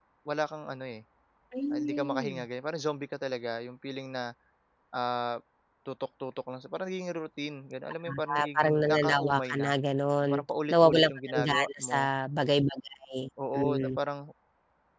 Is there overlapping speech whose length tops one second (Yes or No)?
Yes